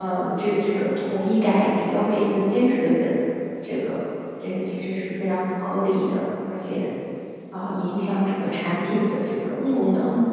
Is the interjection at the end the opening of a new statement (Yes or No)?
Yes